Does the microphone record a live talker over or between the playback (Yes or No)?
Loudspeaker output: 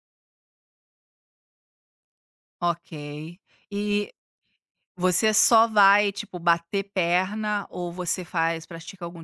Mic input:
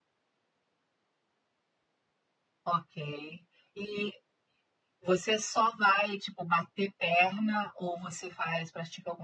No